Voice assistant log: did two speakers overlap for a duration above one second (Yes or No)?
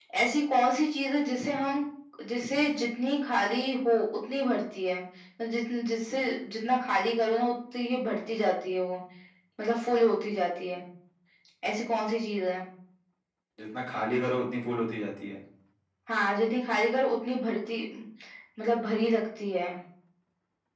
No